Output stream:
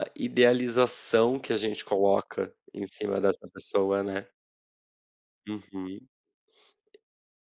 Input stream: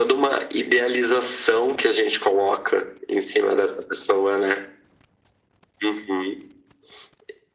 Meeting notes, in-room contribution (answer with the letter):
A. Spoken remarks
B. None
B